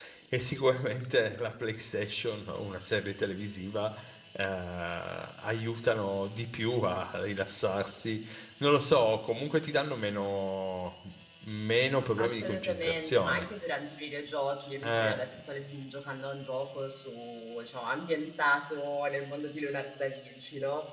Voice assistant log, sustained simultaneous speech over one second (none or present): present